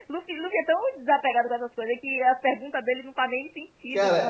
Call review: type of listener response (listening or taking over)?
taking over